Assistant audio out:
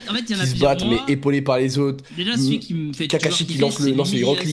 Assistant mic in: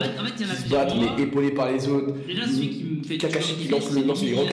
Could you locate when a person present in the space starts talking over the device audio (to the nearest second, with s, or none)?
none